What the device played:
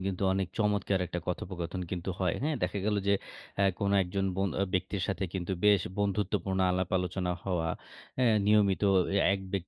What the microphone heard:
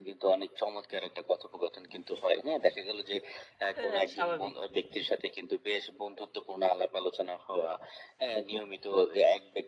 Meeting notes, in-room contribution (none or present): present